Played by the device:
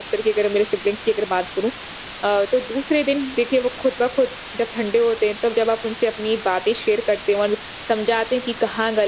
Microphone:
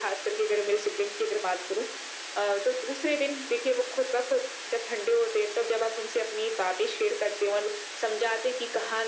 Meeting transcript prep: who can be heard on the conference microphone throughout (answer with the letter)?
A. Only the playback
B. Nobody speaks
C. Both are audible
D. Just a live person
A